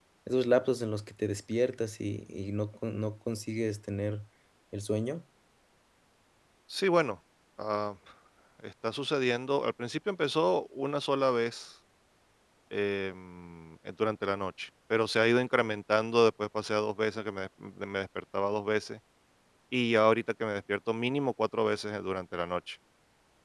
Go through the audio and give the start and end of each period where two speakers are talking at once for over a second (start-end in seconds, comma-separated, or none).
none